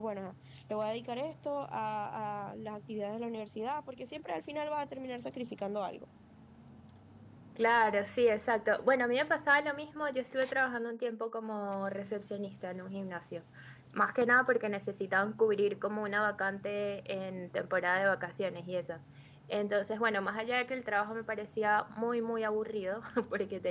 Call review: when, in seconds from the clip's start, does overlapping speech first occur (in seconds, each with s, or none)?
none